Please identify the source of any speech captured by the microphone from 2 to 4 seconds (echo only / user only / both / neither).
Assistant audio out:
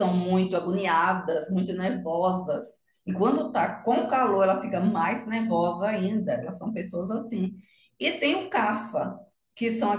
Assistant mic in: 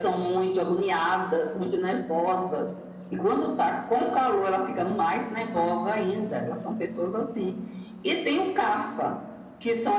echo only